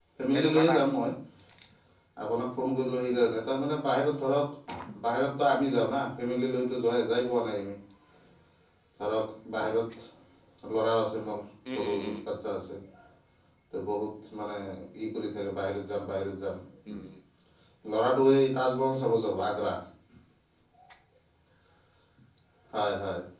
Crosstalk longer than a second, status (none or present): none